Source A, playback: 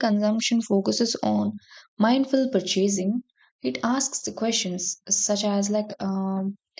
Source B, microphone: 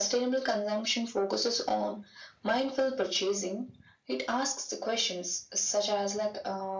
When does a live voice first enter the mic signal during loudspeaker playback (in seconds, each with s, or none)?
none